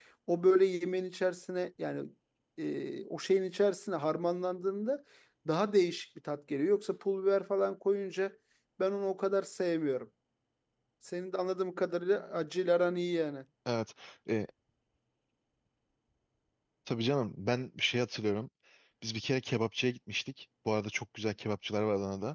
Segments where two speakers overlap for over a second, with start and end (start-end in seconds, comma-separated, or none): none